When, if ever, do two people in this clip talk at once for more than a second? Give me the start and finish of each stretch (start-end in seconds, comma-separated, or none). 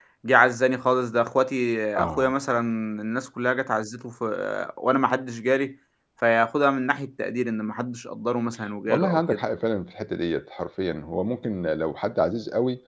none